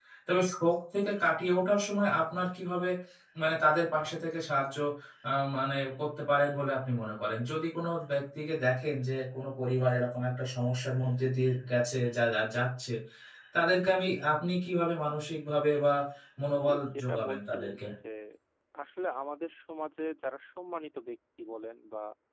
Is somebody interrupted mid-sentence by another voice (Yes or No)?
Yes